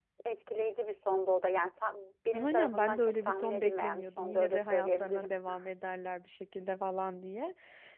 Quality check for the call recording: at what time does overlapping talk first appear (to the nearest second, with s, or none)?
2 s